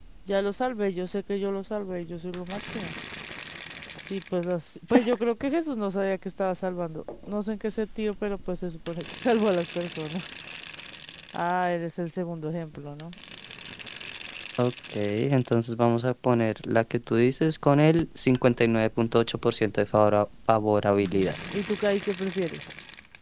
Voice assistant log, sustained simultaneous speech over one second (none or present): none